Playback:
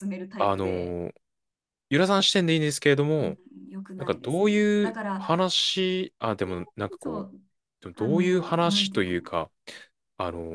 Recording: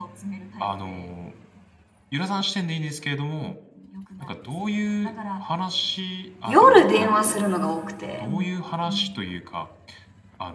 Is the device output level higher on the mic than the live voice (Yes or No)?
No